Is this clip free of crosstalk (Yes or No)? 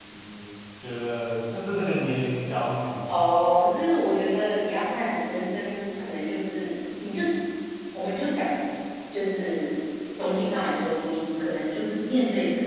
Yes